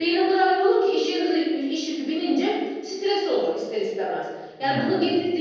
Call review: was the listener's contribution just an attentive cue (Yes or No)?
Yes